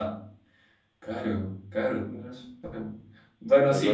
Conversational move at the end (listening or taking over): listening